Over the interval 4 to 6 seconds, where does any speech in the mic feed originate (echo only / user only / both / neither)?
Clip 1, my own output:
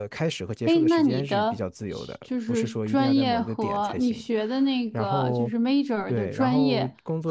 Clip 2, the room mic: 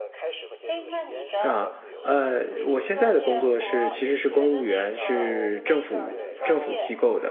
both